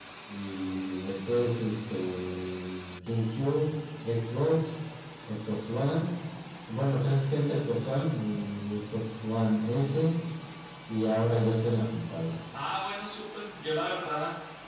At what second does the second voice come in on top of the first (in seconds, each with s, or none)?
none